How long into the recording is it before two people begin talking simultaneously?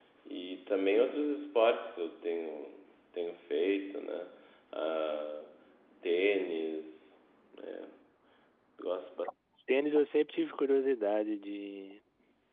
none

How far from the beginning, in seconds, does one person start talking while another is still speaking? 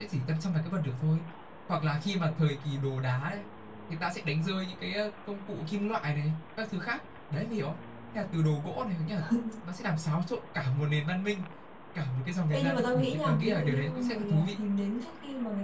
12.5 s

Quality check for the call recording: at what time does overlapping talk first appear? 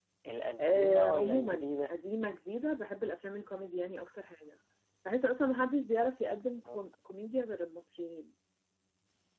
0.6 s

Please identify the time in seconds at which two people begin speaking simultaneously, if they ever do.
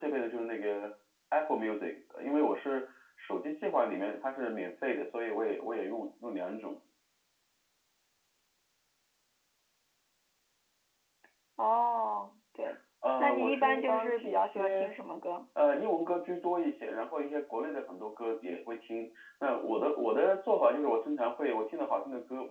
13.2 s

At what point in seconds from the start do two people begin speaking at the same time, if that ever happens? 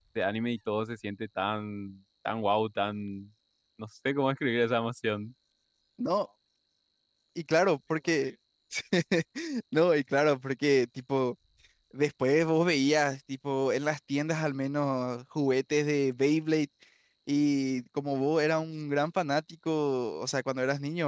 none

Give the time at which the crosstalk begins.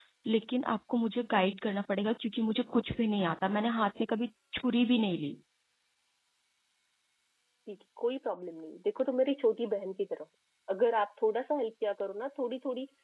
none

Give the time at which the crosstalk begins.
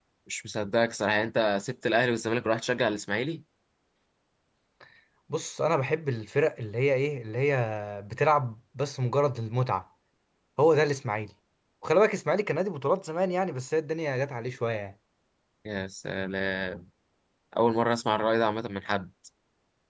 none

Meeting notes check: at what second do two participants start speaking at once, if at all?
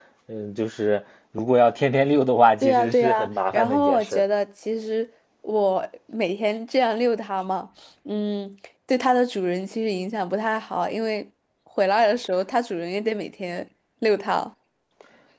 2.6 s

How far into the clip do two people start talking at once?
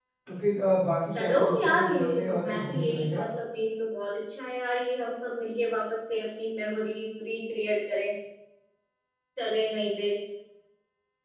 1.1 s

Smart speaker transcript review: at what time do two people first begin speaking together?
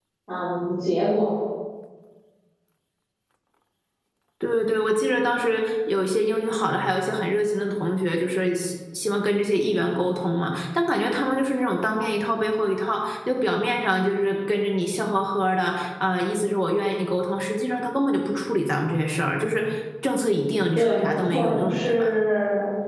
20.7 s

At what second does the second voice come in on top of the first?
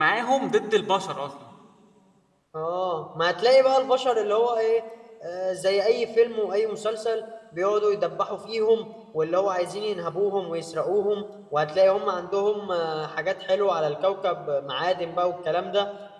none

